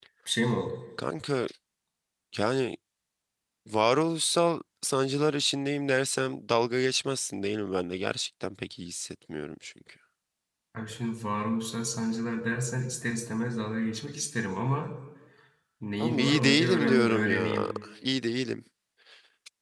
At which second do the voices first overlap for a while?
16.0 s

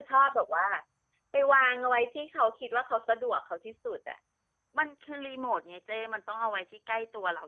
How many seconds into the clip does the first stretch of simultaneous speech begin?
none

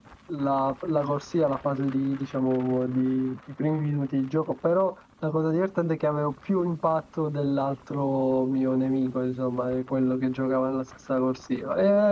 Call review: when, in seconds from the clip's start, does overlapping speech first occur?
none

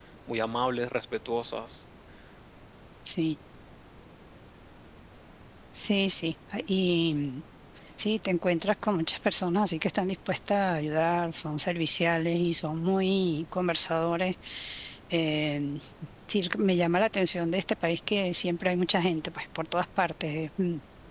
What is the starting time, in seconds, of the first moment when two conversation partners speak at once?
none

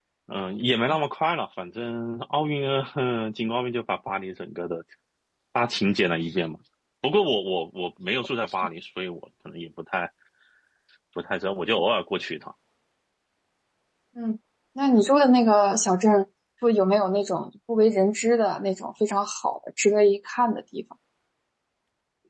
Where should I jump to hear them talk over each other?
none

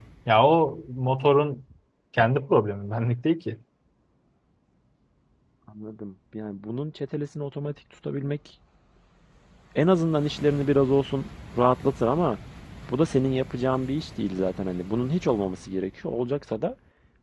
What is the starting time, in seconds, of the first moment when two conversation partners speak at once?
none

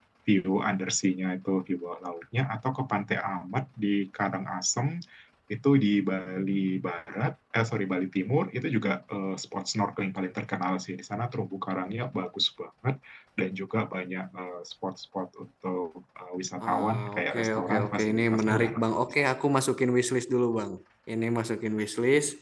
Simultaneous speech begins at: 16.6 s

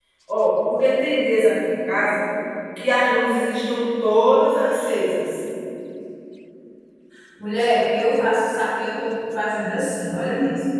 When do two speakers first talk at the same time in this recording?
none

